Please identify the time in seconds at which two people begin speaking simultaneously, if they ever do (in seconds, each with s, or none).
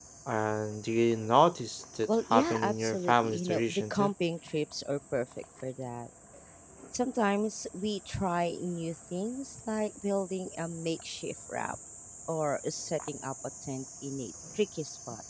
2.1 s